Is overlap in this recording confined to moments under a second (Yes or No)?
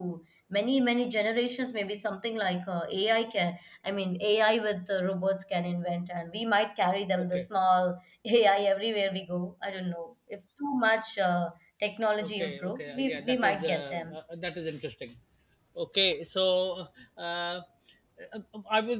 No